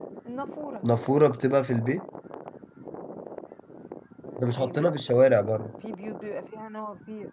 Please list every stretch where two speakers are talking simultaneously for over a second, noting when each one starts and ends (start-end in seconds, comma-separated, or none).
none